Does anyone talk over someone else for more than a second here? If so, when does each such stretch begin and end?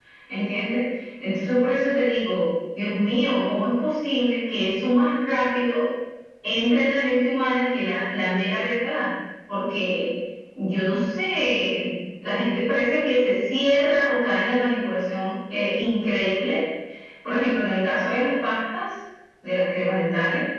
none

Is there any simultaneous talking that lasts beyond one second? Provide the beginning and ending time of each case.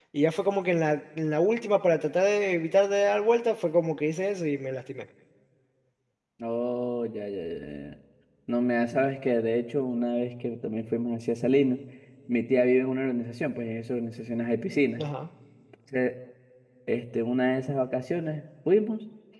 none

